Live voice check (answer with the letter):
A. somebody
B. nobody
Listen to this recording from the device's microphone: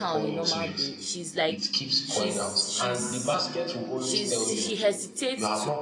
A